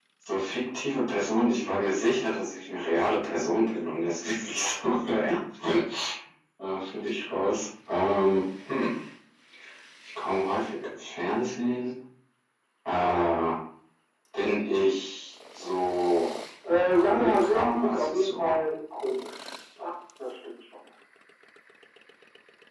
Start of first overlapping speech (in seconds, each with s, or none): 16.6 s